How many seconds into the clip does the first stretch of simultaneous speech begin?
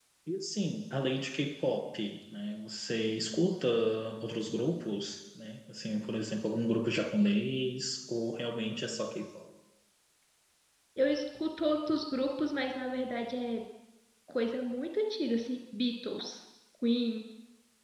none

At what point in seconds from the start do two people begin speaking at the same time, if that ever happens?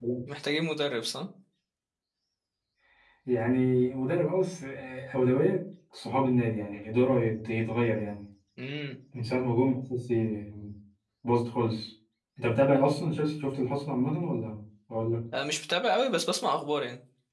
none

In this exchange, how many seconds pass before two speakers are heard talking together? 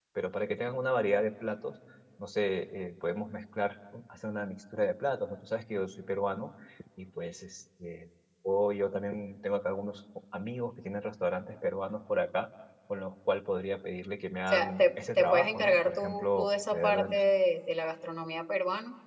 14.5 s

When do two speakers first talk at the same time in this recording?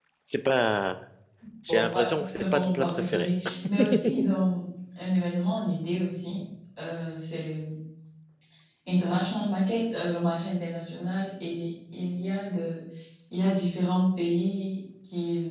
1.7 s

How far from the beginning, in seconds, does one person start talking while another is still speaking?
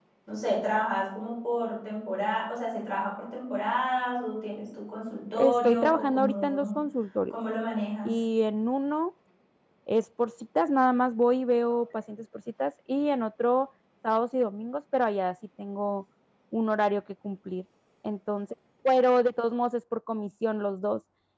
5.4 s

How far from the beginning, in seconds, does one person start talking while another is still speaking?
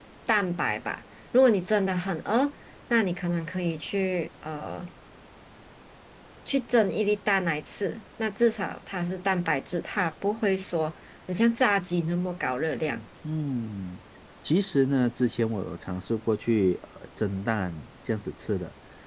none

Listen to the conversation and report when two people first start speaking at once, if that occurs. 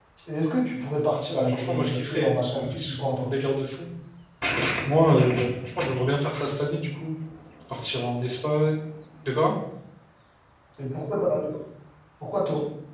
1.3 s

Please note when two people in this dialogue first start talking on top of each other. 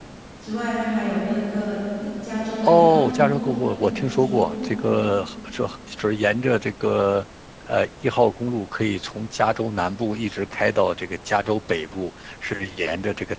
2.6 s

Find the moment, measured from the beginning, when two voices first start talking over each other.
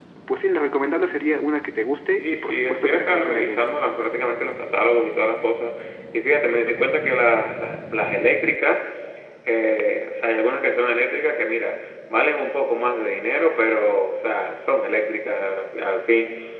2.2 s

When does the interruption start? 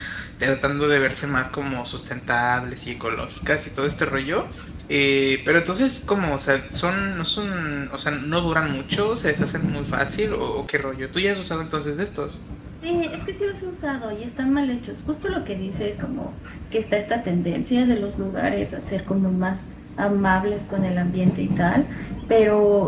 none

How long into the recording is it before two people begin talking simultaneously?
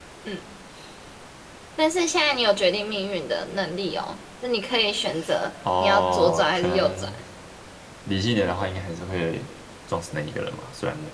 5.7 s

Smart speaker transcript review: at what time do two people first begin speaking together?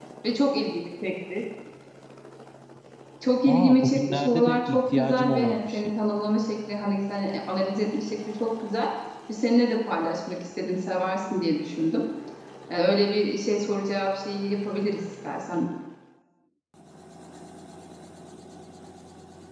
3.5 s

